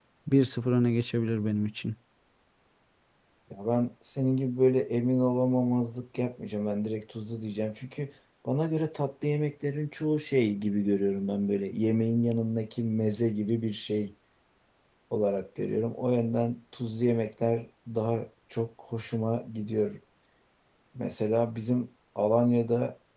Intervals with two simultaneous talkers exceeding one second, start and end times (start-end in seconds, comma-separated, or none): none